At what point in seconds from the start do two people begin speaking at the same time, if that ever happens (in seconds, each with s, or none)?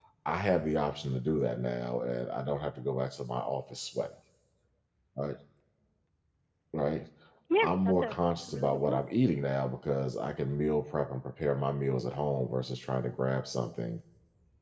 7.6 s